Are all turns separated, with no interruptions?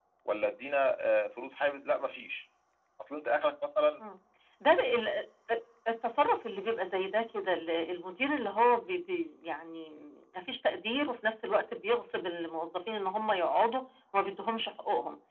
Yes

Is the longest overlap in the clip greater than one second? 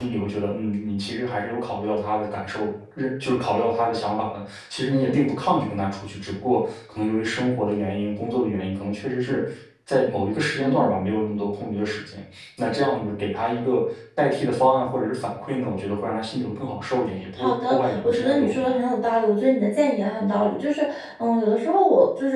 Yes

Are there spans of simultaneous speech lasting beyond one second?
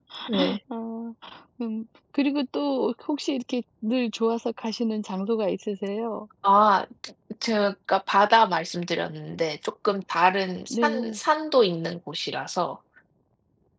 No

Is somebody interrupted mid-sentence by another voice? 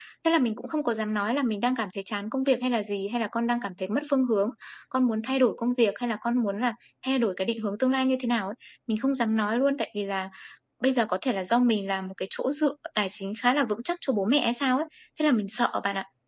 No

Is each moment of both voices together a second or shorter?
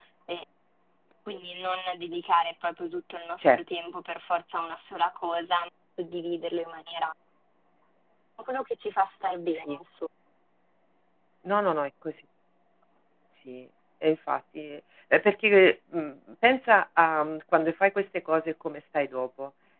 Yes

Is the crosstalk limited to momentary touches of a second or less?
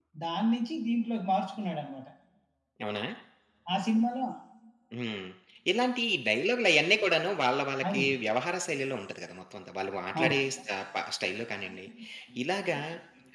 Yes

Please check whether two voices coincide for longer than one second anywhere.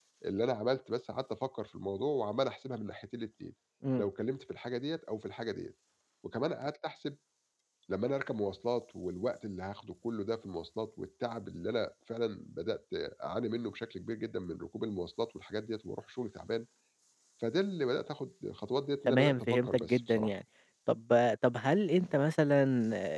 Yes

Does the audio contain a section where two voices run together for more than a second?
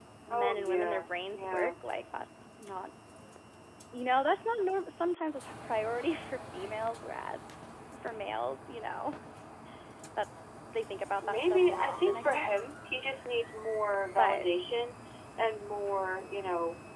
Yes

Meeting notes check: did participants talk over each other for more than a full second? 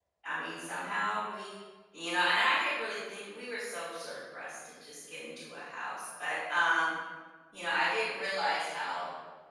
No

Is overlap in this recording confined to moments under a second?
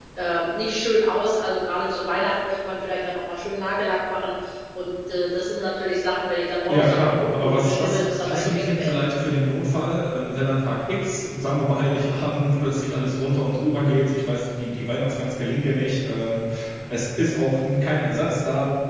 No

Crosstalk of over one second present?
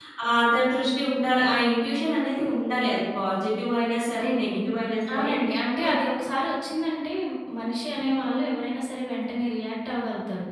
No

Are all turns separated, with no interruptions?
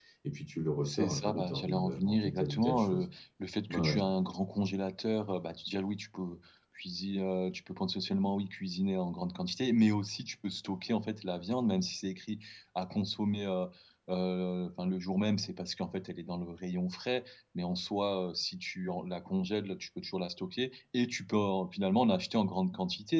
No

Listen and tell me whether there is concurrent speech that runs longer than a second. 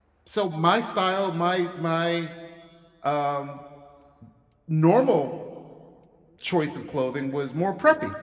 No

